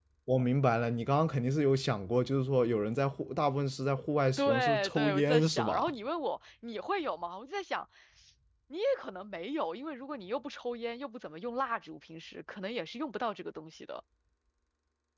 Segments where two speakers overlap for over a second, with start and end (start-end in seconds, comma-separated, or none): 4.4-5.9